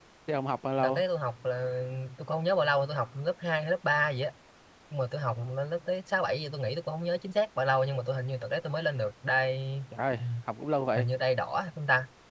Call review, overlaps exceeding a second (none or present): none